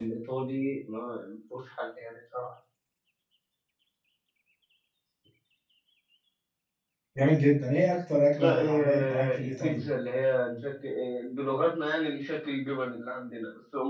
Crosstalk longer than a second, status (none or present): present